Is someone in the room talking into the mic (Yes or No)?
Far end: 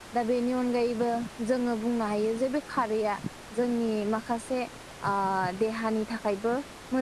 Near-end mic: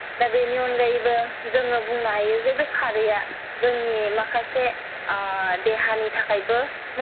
No